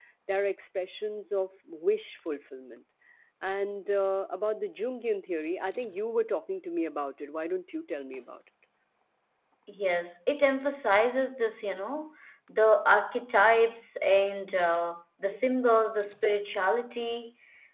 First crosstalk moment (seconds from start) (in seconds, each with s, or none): none